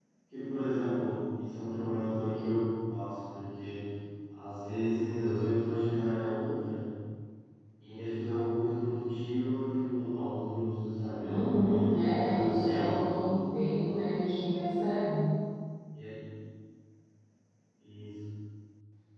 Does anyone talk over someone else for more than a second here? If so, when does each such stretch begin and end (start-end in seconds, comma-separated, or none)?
11.2-13.4